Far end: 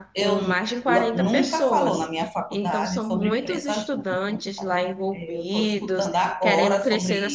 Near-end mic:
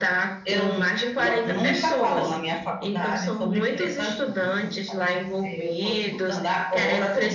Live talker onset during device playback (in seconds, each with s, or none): none